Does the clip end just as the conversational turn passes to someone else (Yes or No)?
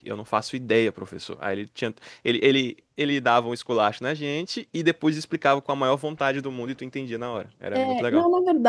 Yes